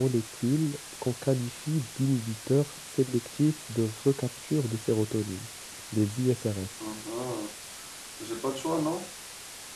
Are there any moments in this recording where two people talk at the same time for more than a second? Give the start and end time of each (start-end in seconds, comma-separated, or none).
none